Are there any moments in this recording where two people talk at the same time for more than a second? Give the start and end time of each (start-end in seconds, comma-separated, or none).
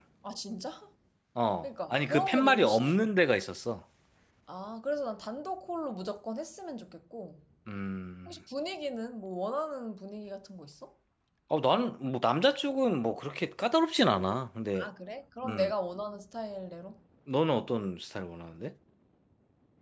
1.6-2.9